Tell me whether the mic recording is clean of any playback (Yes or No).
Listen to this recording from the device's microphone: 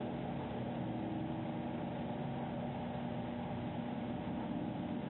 Yes